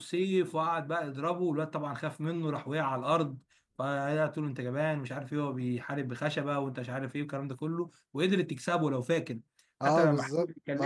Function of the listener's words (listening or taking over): taking over